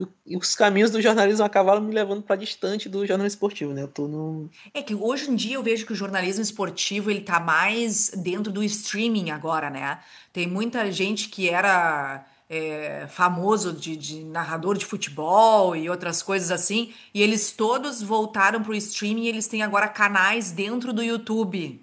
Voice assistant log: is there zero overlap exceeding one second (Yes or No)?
Yes